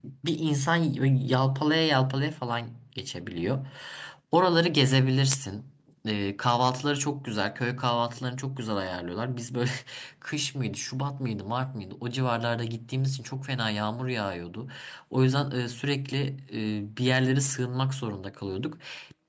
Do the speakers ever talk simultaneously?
No

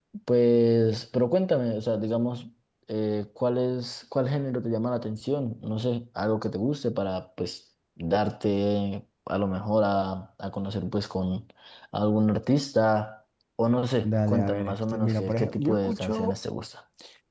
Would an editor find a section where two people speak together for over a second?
Yes, from 14.0 s

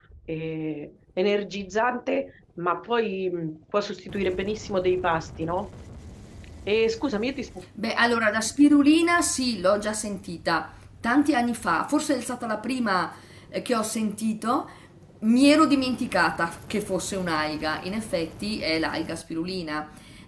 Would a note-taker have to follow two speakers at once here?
No

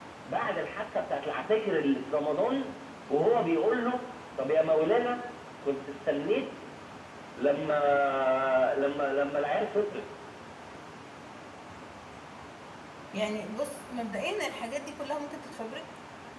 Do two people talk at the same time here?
No

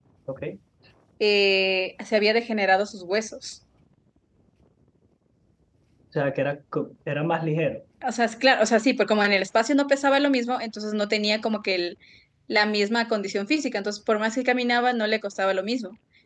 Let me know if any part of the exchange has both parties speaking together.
No

